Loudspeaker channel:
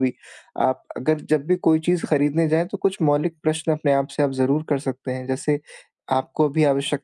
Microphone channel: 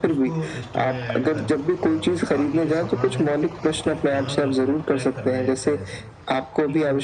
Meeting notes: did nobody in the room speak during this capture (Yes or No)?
No